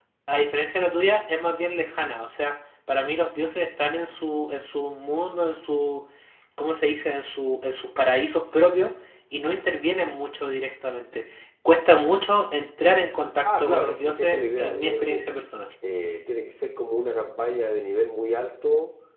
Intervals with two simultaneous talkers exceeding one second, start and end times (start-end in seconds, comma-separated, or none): 13.4-15.2